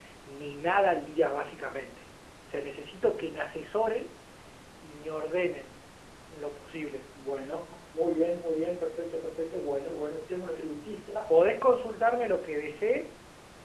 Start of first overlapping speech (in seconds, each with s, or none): none